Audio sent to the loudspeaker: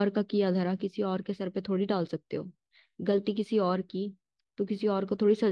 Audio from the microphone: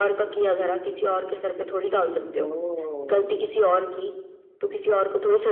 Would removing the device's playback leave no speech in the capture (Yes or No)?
No